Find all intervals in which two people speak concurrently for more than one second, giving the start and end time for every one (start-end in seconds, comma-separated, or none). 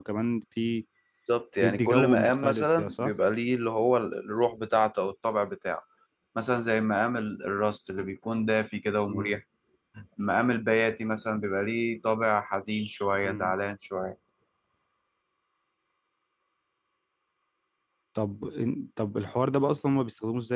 1.6-3.1